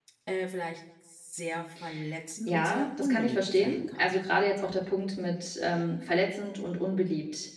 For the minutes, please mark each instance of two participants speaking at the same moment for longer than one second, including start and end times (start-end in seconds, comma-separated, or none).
2.5-4.0